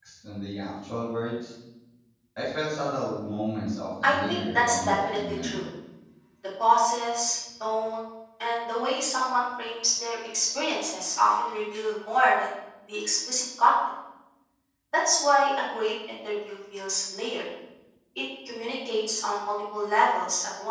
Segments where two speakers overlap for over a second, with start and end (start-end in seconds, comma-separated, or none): 4.0-5.6